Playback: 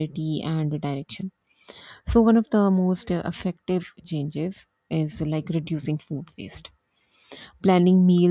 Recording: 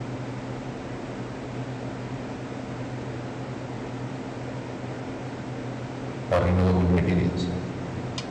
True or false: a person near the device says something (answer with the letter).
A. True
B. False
A